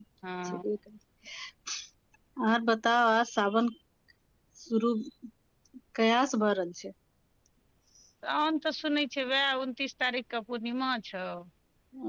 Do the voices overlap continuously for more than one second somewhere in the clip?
No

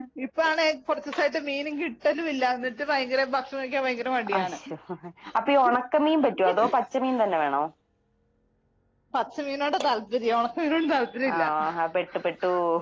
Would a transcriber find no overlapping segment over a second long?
Yes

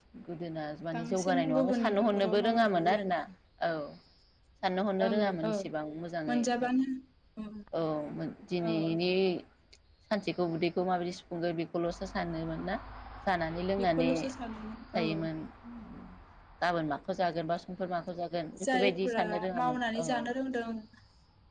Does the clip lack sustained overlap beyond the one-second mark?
No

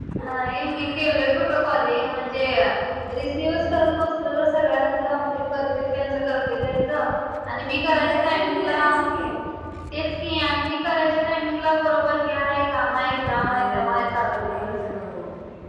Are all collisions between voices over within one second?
No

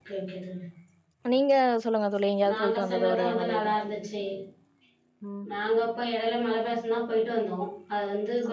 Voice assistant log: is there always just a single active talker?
No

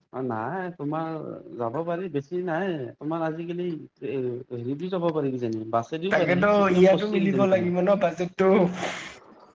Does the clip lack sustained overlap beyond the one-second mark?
No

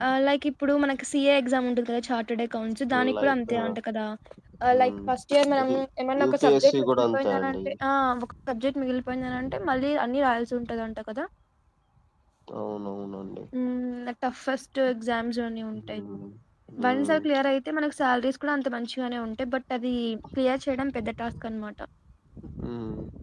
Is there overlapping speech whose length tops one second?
Yes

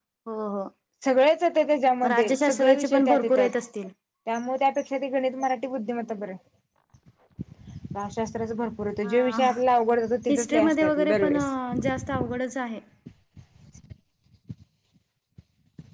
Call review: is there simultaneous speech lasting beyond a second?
Yes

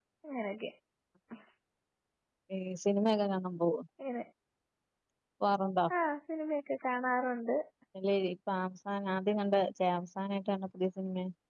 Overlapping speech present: No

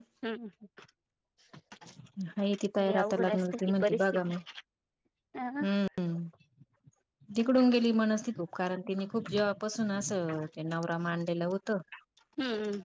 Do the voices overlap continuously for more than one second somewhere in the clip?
Yes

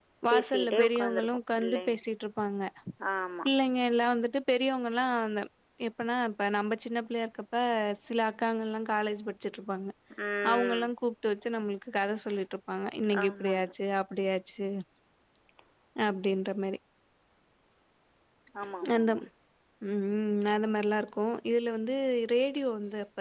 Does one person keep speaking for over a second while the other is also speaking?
Yes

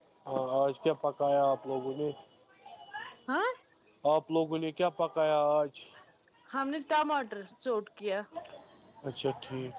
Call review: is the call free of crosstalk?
Yes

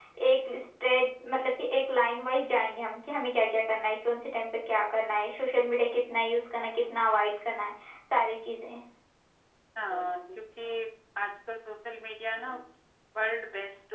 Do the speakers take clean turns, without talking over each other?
Yes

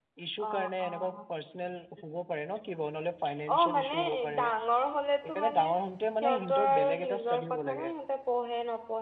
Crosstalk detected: Yes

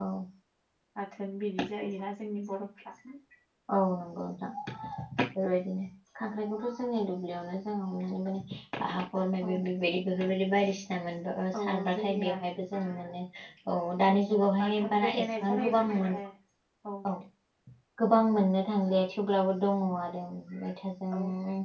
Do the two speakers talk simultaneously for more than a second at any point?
Yes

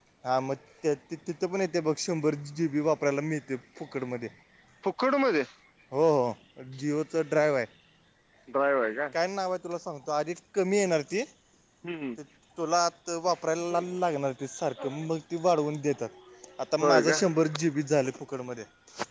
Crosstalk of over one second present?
No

